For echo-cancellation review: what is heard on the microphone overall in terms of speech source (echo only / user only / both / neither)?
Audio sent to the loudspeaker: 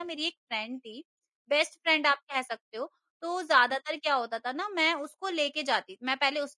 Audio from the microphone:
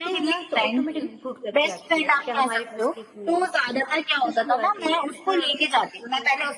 both